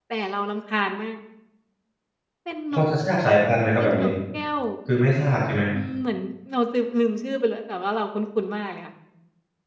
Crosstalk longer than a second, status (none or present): none